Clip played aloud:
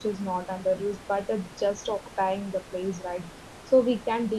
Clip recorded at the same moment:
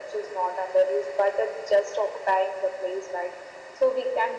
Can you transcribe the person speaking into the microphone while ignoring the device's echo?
none

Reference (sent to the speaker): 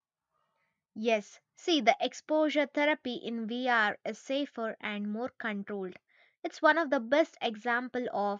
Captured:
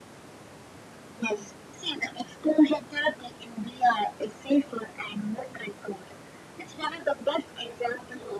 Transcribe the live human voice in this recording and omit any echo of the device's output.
none

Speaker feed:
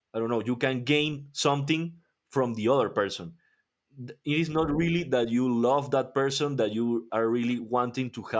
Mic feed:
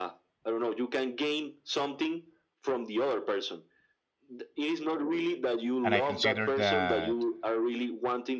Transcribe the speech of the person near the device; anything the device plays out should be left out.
and i consider that

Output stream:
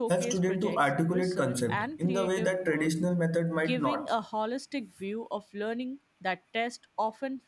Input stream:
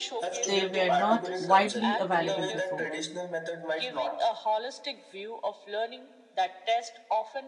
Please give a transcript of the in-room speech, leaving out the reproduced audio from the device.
they were not widely available before.

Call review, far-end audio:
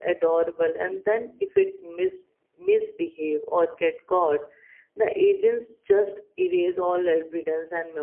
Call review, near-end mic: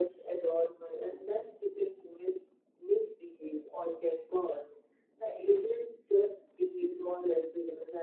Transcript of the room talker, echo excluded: none

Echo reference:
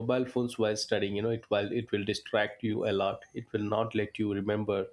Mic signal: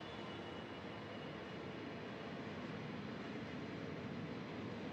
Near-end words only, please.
none

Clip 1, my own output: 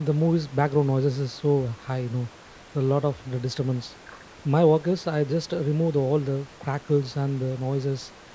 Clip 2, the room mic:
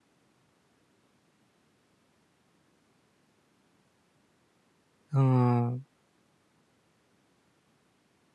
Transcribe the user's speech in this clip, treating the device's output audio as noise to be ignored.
uh,

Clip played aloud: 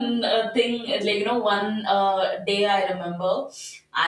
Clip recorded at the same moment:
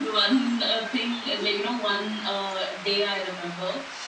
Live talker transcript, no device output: none

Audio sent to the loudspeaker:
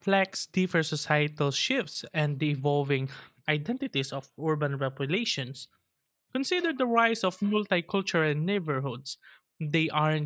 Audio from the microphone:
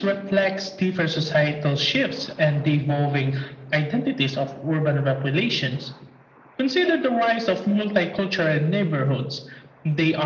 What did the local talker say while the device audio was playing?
none

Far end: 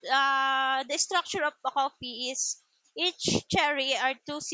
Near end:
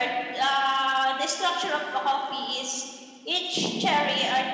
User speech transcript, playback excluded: none

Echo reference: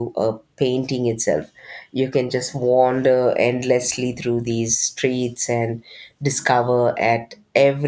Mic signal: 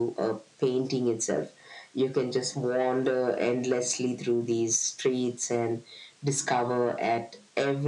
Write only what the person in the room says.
none

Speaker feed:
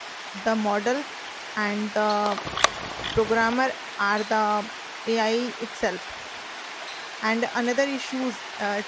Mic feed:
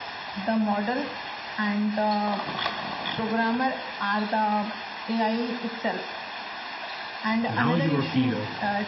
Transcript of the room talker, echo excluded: Now you are clear.

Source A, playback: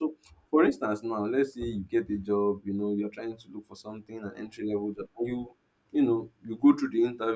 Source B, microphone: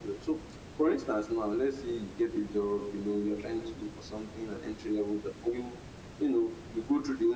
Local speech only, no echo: none

